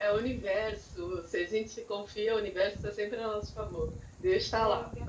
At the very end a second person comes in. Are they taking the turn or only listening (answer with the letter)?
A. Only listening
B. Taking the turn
A